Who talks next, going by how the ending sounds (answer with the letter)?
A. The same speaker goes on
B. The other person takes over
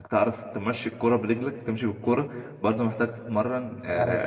A